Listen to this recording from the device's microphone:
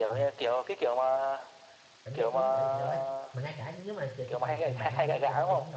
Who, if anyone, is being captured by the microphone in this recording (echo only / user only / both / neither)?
both